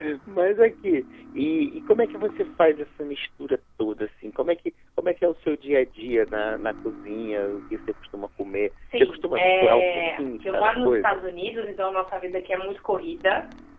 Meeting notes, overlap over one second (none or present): present